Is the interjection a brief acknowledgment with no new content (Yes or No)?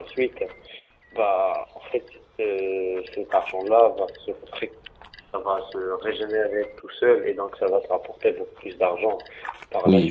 No